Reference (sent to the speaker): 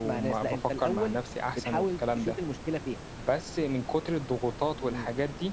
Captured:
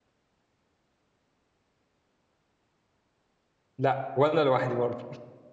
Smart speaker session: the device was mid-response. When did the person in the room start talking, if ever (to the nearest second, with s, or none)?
4 s